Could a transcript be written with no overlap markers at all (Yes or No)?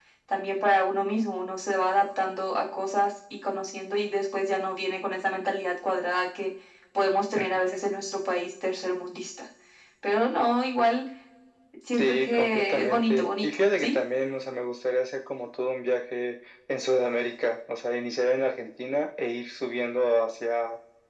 No